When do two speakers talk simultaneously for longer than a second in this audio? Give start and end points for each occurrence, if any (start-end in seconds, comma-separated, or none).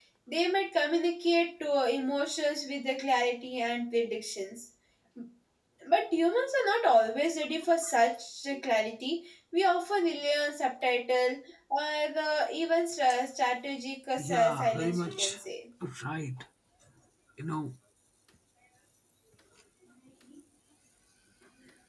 14.2-15.4